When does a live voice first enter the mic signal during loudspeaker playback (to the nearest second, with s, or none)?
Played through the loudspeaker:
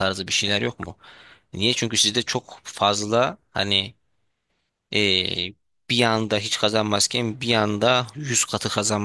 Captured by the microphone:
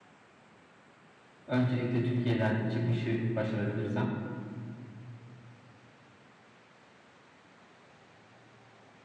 1 s